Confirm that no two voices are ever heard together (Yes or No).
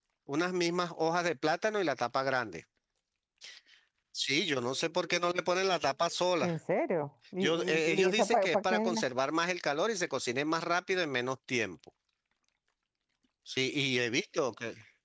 No